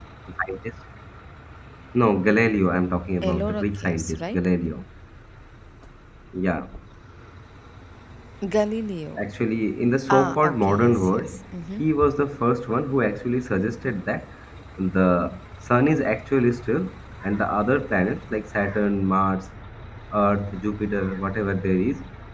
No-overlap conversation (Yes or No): No